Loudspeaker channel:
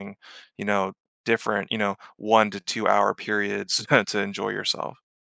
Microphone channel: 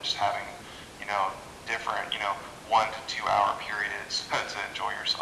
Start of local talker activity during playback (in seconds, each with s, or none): none